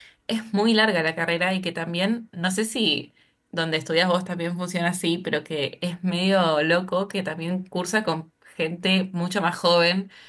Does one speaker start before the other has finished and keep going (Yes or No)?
No